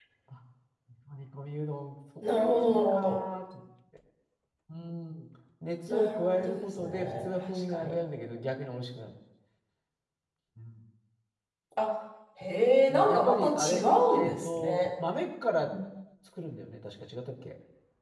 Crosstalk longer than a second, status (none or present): present